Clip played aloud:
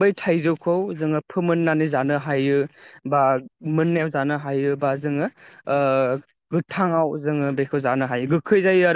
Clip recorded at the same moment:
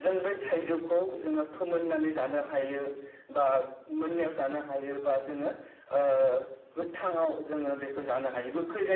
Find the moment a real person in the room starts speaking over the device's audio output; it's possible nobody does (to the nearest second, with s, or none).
none